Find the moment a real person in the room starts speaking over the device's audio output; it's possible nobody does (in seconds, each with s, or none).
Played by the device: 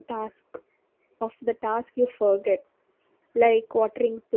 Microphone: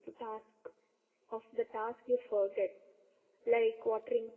none